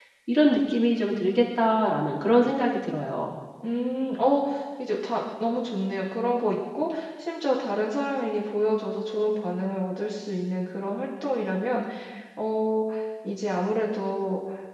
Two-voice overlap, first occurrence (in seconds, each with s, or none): none